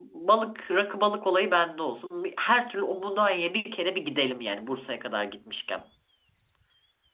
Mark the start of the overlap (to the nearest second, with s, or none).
none